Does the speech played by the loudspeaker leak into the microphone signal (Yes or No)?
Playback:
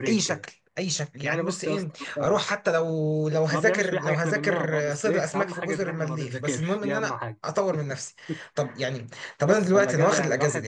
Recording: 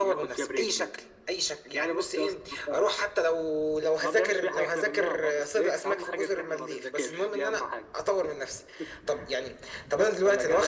Yes